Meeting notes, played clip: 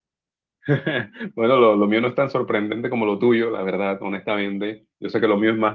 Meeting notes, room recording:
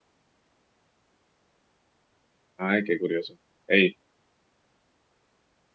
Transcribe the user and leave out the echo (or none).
Ay, qué curioso. Ey,